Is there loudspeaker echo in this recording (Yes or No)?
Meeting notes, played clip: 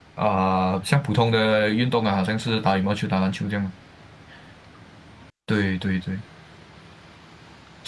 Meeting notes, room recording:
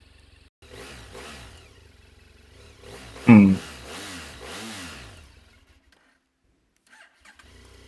No